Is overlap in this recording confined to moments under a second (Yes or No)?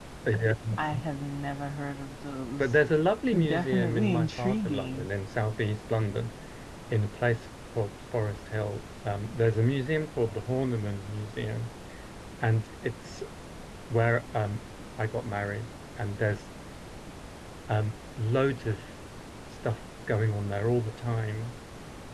No